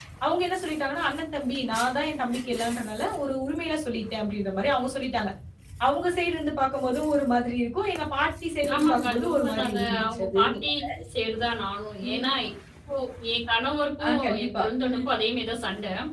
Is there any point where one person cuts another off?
Yes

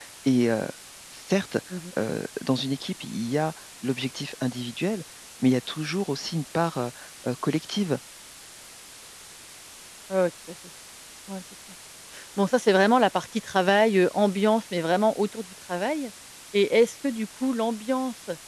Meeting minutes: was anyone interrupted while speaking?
No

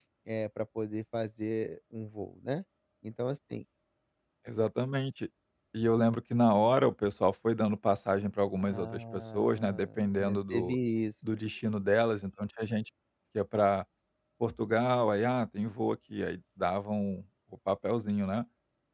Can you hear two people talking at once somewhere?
Yes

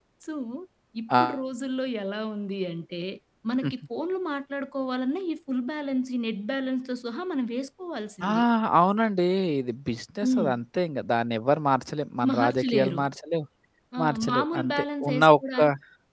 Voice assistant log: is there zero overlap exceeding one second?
No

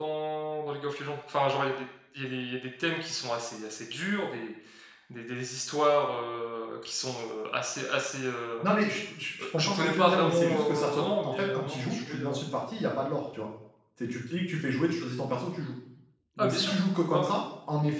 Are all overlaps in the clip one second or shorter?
No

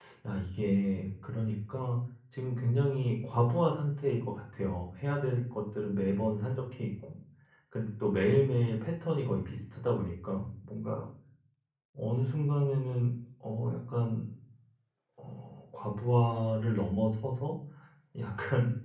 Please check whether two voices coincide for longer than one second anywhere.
No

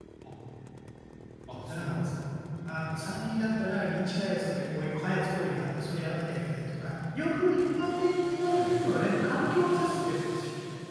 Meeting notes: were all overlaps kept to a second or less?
Yes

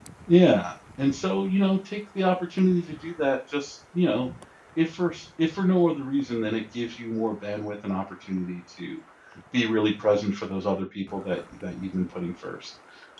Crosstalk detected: No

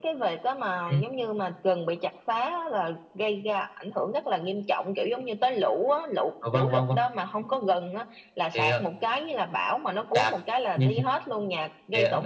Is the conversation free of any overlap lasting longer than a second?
Yes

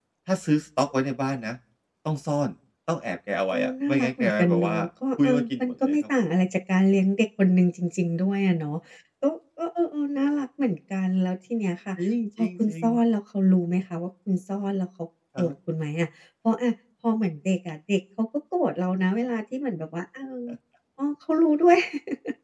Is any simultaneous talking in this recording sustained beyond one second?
Yes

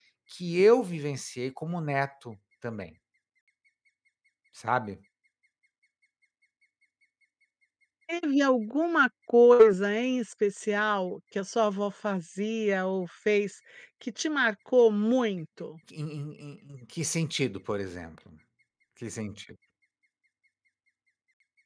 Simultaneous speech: No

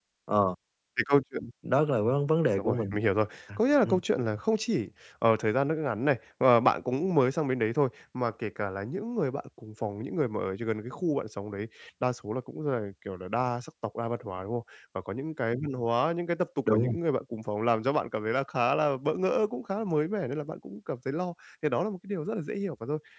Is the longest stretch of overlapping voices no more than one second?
Yes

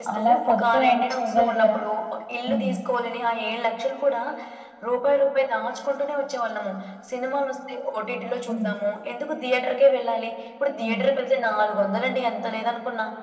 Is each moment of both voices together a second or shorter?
No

